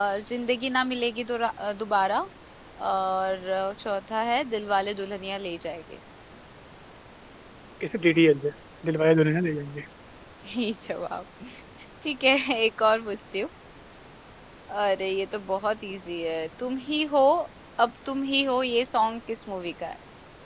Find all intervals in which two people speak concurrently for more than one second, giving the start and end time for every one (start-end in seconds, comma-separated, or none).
none